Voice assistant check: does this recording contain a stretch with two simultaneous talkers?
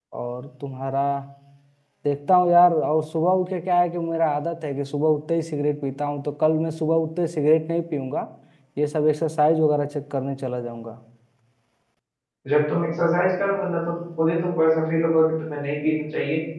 No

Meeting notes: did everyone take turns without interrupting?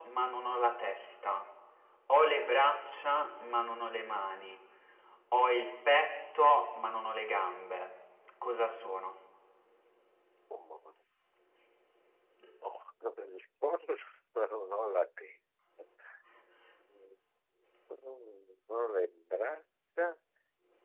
Yes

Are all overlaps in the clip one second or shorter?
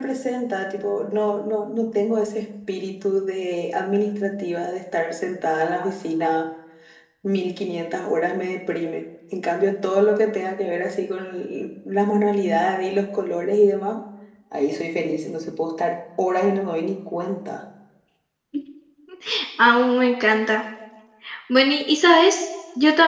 Yes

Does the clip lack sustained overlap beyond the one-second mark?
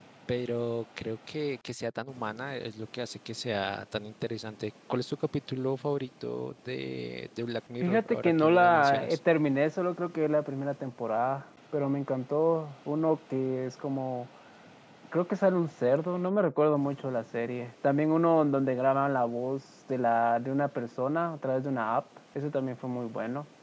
No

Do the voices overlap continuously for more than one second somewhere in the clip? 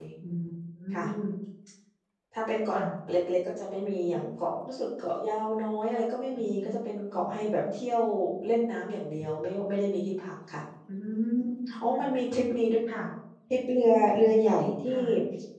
No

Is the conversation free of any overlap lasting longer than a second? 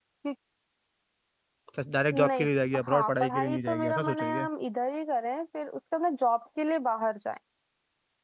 No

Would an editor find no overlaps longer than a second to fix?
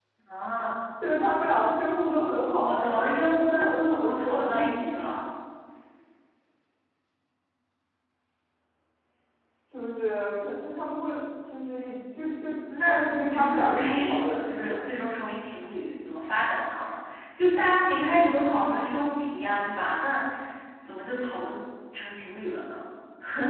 No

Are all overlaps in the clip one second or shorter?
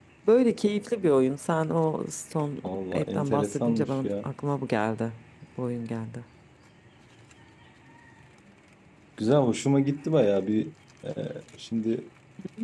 No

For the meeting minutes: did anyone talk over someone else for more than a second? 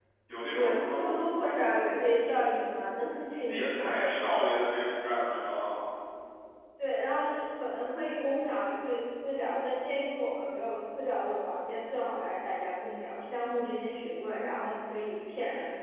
No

